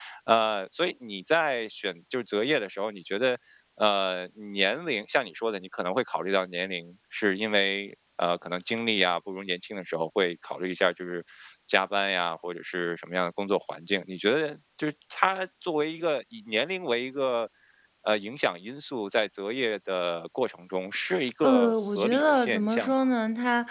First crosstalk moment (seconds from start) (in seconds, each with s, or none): 21.4 s